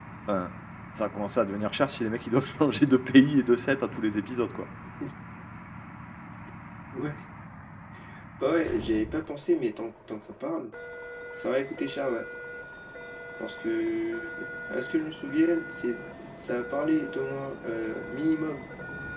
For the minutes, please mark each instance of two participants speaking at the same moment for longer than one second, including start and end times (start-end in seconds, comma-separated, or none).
none